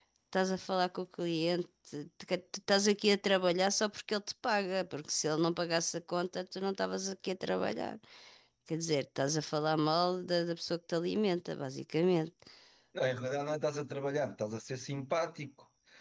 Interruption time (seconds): none

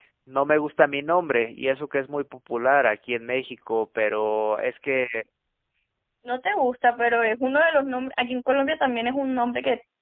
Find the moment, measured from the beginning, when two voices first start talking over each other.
none

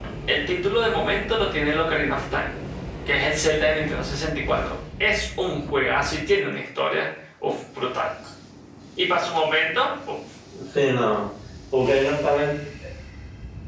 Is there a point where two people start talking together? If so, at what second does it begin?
none

